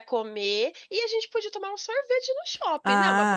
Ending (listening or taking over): taking over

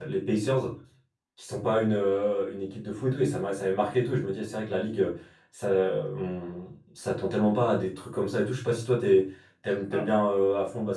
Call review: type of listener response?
listening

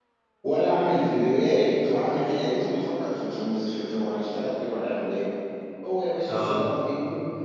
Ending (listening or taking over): listening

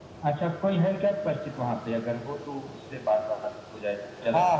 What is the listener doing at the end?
taking over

